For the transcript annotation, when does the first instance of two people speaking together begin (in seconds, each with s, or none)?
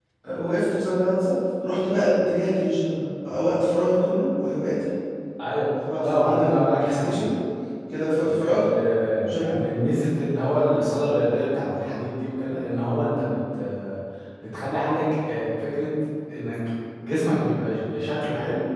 6.0 s